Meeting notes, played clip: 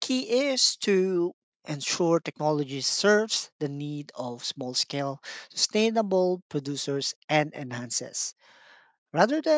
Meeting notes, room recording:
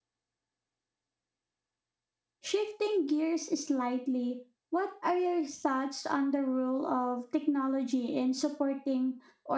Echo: none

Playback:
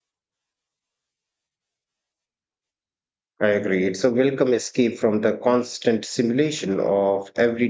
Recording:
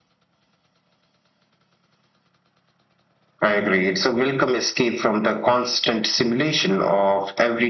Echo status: present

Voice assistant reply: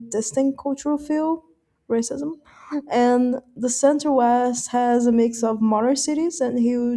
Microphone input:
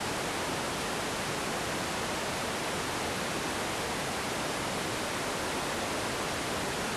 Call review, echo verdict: none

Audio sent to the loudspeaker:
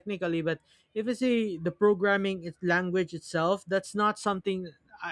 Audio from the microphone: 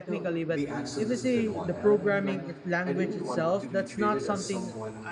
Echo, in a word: present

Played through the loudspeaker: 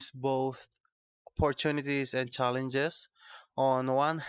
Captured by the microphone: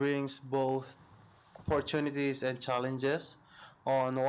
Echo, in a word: present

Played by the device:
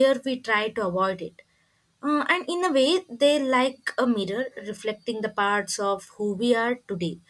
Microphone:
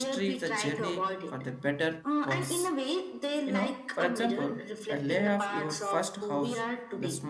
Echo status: present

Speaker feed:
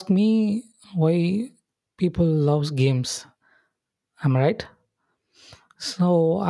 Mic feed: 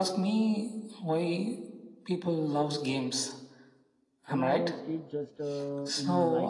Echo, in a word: present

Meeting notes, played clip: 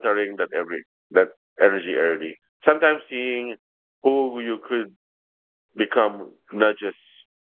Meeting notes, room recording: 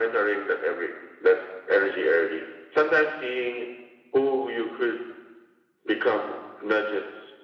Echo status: present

